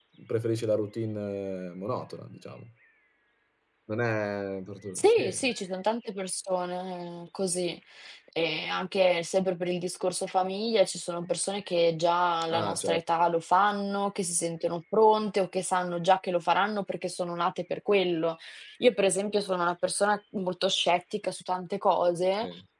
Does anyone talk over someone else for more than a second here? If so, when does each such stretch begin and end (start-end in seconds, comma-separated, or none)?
none